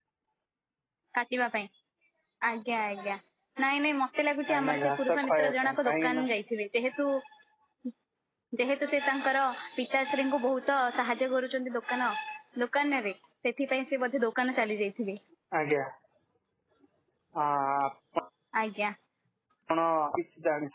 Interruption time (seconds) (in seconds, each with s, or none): 4.5 s